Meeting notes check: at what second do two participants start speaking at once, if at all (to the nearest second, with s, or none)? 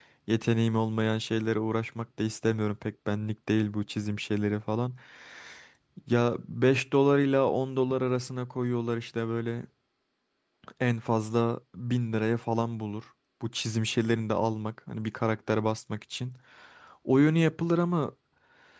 none